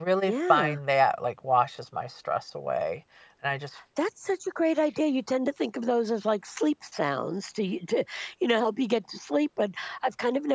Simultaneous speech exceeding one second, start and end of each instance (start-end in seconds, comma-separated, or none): none